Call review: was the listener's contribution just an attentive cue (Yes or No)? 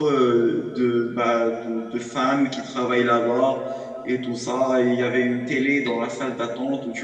Yes